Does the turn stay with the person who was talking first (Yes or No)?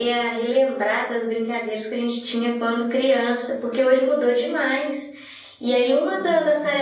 Yes